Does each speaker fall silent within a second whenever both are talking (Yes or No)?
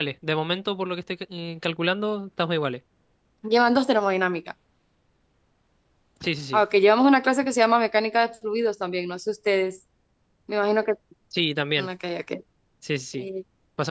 Yes